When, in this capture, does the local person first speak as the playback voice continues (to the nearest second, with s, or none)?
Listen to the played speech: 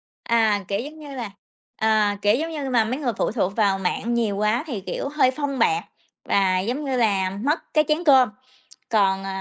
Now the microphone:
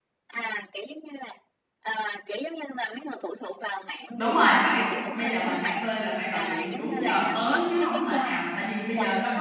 4 s